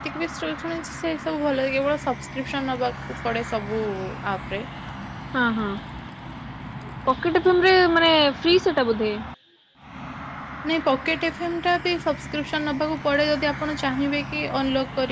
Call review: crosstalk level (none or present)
none